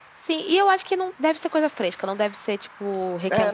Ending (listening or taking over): taking over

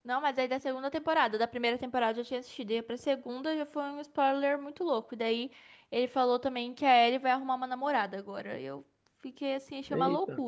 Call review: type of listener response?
taking over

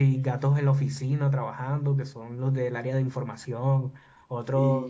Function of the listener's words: listening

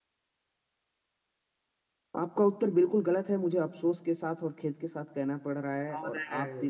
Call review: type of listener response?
listening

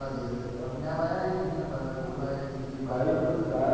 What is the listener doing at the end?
taking over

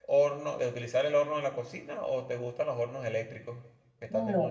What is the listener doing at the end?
taking over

